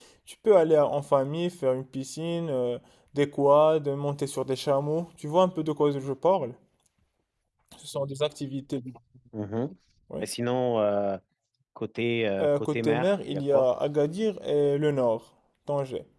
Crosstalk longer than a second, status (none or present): present